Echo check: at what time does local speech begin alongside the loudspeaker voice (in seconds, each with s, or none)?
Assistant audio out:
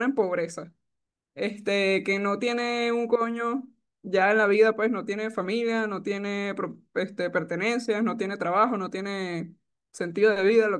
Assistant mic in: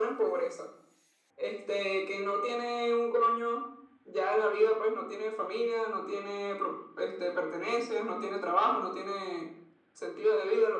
none